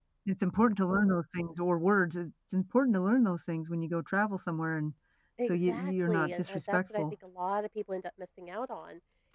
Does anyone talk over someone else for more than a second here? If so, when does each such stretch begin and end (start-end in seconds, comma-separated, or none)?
5.5-7.0